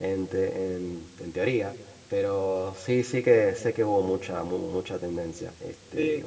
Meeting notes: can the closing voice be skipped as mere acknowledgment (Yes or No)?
No